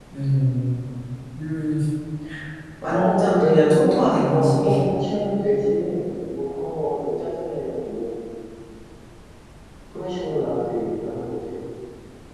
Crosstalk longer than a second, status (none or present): present